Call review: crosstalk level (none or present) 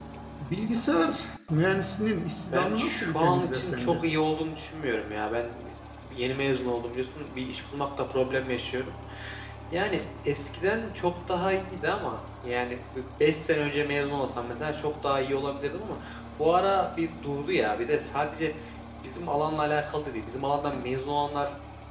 present